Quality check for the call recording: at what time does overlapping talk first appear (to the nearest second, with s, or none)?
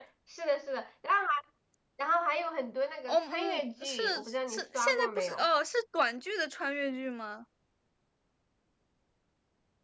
3 s